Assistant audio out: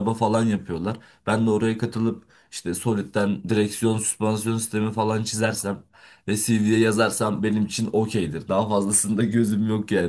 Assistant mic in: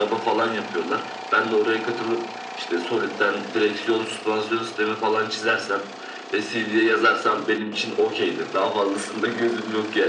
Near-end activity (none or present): none